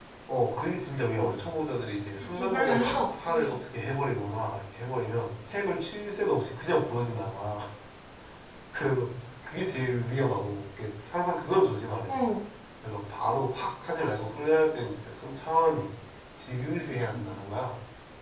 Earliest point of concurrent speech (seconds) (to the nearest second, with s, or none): 2 s